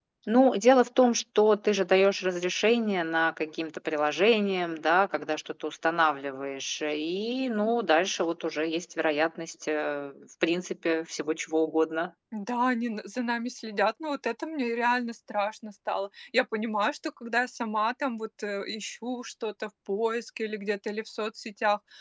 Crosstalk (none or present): none